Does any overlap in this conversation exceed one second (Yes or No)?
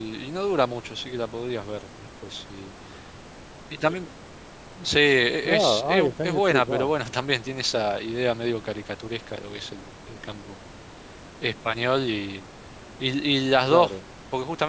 Yes